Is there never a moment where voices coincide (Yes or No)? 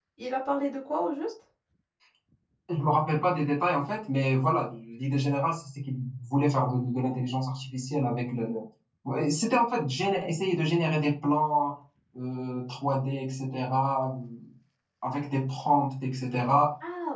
Yes